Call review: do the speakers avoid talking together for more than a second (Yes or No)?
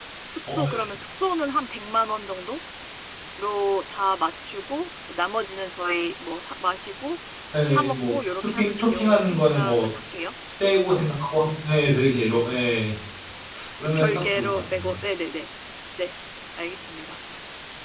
No